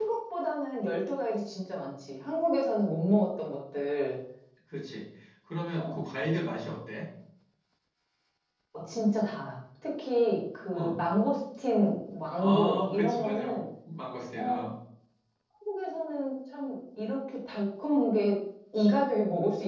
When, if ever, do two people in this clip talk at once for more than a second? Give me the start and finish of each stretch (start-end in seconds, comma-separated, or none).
12.4-13.6